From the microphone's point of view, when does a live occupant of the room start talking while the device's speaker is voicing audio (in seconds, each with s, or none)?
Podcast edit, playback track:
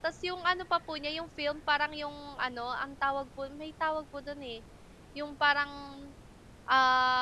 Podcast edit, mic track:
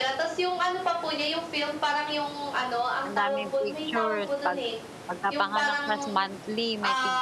3.1 s